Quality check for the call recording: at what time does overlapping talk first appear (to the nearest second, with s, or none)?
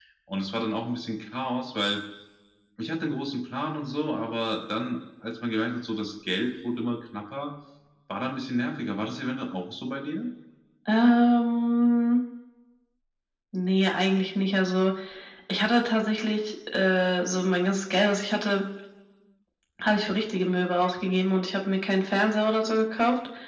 none